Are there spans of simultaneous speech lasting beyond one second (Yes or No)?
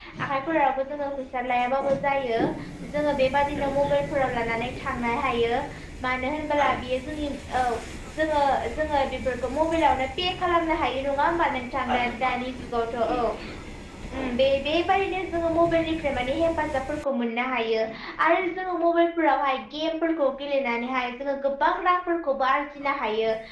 No